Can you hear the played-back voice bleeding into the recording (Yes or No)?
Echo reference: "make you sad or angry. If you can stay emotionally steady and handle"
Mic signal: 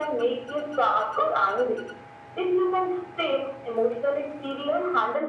Yes